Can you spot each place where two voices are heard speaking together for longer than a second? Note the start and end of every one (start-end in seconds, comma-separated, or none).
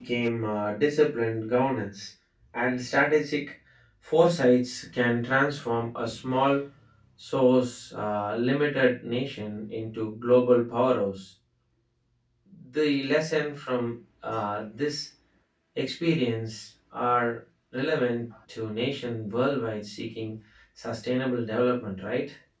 none